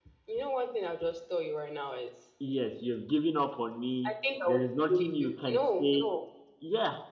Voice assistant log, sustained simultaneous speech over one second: present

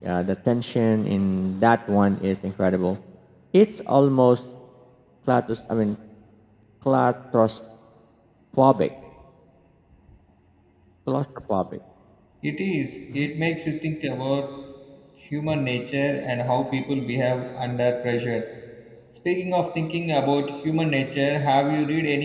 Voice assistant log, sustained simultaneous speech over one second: none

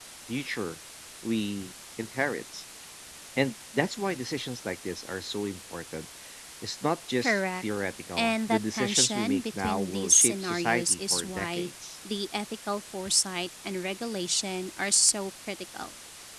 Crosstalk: present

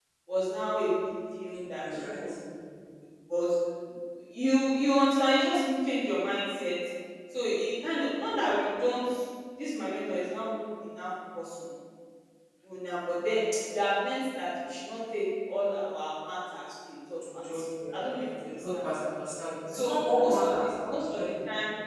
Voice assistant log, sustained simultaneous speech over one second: present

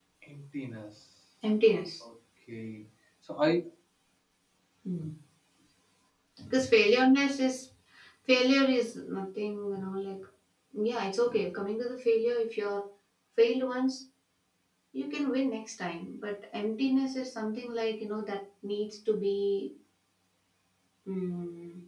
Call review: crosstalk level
none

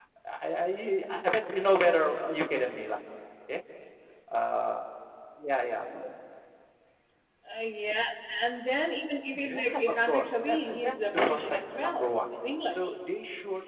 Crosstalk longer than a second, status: present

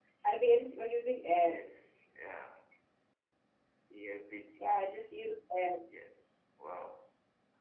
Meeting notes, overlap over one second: none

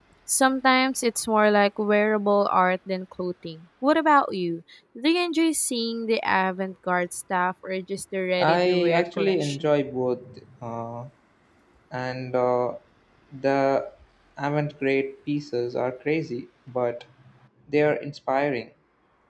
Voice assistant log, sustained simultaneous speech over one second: present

